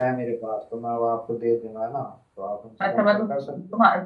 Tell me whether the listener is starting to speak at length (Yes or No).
Yes